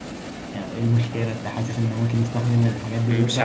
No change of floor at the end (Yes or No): No